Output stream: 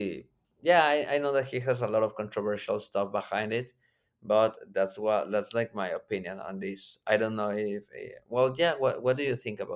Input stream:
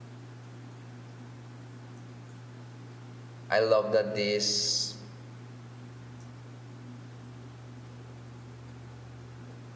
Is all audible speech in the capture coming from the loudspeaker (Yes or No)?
No